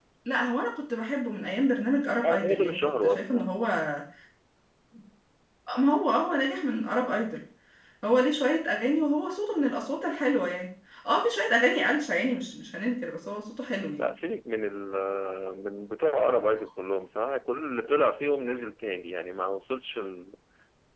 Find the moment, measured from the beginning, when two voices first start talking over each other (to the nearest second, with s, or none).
2 s